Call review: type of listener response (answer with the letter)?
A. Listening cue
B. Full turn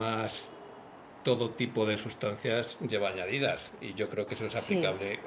A